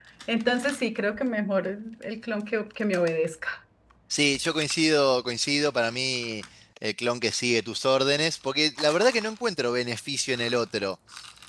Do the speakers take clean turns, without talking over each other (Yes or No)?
Yes